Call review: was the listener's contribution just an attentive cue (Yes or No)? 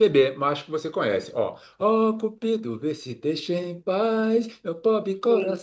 Yes